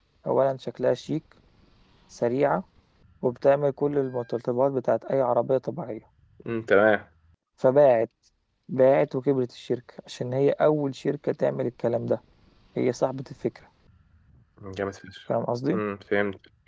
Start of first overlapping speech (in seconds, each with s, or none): none